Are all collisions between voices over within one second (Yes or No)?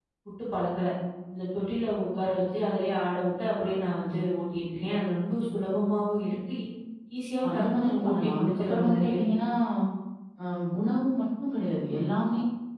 No